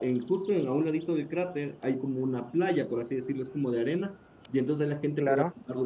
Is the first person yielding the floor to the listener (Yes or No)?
No